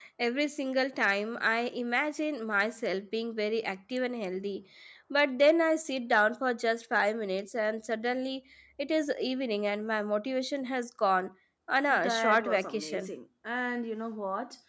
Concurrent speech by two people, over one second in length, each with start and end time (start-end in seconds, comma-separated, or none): 11.9-13.1